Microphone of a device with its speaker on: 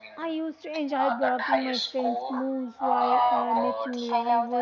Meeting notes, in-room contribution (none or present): present